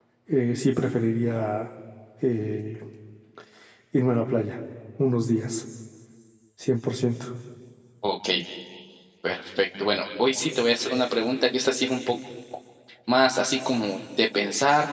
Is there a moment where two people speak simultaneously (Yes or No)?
No